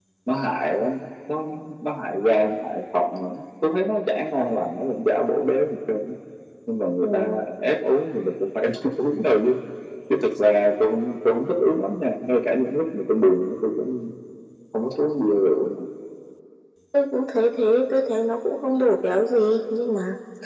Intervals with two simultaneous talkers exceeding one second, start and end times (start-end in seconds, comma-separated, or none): none